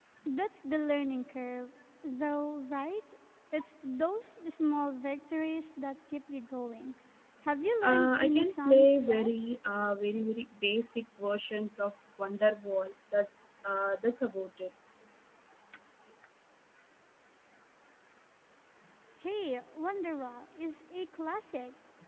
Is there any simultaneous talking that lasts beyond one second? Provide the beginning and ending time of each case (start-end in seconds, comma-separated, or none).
7.8-9.3